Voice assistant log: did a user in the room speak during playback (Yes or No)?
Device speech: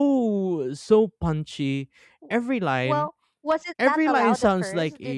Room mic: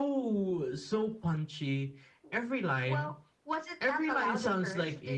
No